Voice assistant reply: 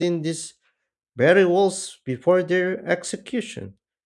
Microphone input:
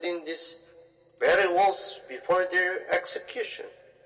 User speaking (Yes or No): No